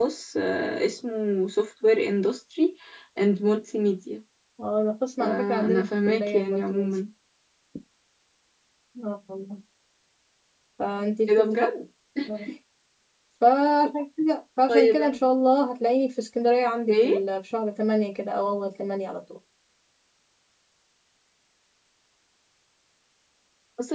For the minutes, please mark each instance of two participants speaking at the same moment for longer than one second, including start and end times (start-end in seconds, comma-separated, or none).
5.2-7.0